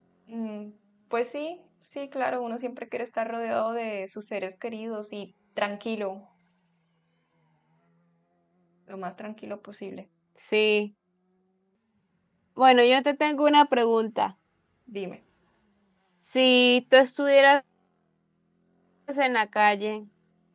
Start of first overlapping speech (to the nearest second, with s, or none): none